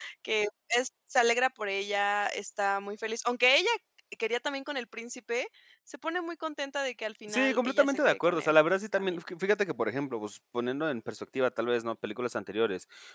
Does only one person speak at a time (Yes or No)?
No